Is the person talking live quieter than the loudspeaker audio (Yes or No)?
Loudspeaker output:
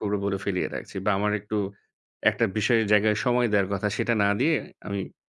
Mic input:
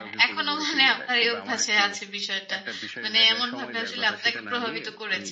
No